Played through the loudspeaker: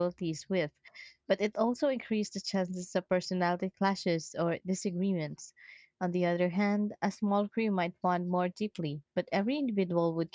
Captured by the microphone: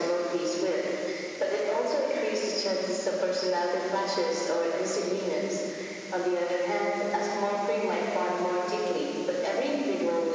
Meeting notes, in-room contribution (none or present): none